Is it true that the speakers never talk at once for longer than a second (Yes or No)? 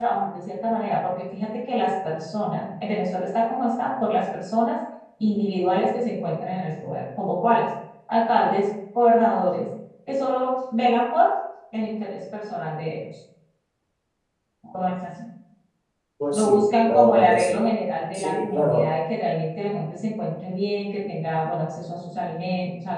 No